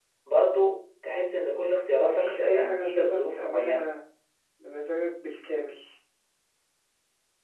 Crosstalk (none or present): present